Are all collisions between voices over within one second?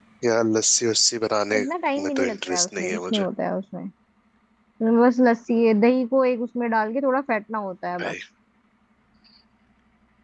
No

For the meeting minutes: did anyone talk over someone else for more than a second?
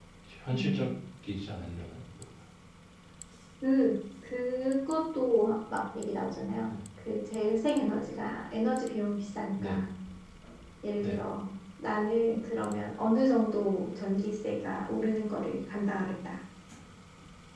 No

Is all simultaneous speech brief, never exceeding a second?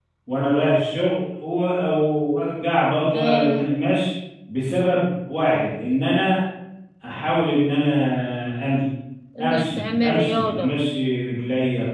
No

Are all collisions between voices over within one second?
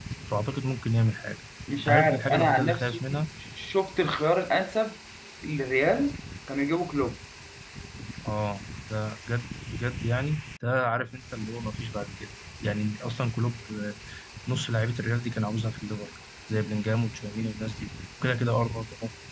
No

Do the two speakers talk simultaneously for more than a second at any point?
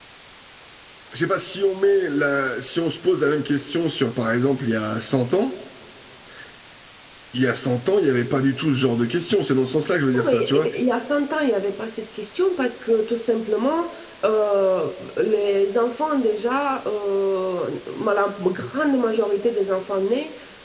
No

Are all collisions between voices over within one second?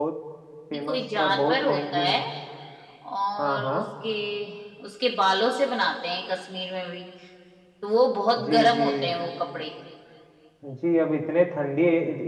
No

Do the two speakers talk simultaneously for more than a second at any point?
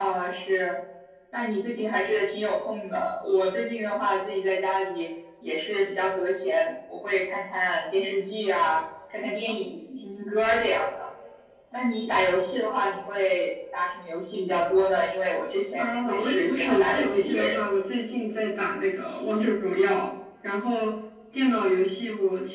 Yes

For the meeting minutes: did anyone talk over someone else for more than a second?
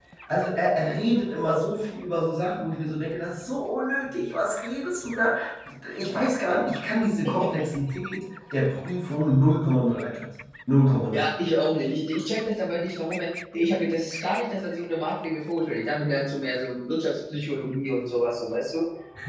No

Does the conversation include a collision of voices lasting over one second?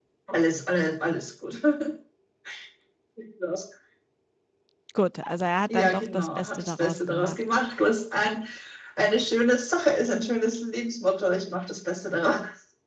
Yes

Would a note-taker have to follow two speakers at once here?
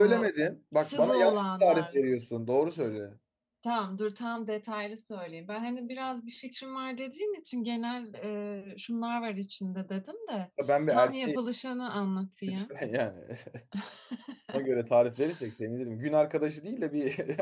Yes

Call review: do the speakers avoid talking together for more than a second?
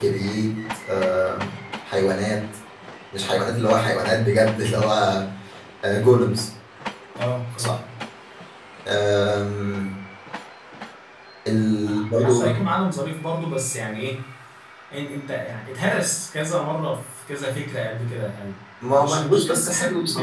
No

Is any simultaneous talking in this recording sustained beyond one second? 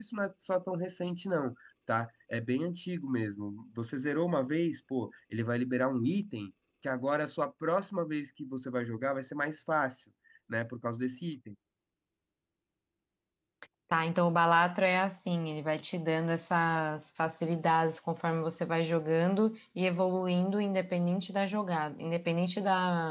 No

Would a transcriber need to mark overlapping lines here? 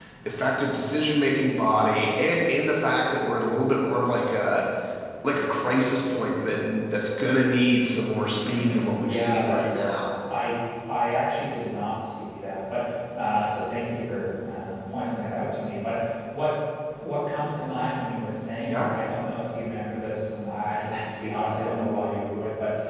Yes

